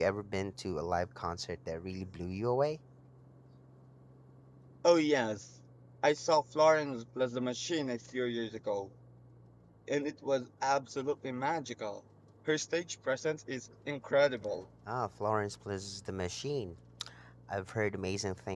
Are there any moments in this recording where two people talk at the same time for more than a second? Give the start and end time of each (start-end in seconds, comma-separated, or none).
none